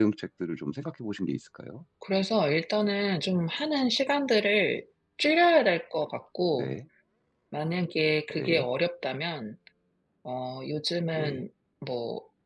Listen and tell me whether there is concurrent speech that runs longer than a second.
No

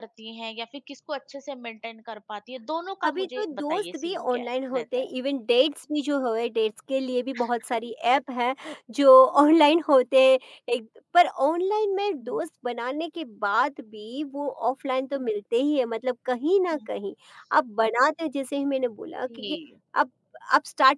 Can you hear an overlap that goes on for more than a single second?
Yes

